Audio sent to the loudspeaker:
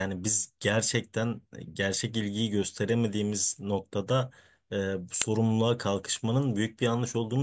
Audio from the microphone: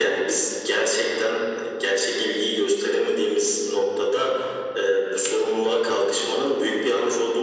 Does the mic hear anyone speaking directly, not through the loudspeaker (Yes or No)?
No